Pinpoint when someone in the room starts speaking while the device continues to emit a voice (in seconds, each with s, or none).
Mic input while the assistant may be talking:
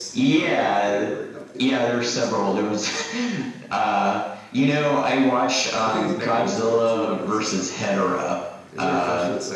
none